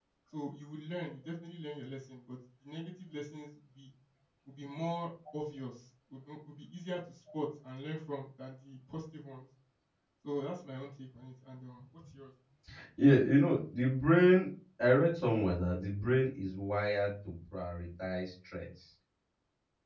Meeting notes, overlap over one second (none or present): none